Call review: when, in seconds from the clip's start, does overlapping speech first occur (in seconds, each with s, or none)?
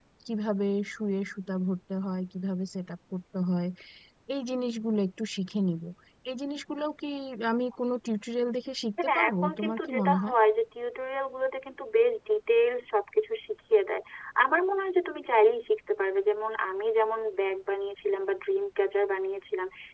9.0 s